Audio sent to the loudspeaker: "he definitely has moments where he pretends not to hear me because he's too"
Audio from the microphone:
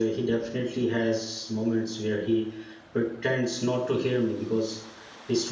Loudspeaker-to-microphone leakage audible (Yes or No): Yes